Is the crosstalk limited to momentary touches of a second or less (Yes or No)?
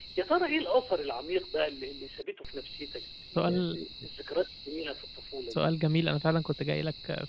Yes